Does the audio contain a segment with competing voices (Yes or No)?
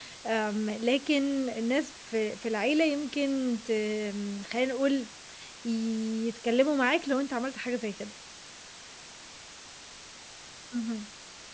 No